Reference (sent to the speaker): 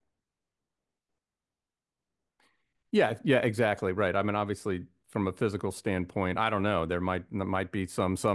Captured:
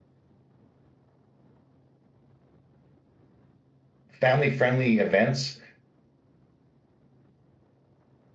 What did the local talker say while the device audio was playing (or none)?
family friendly events